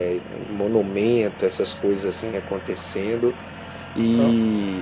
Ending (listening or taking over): listening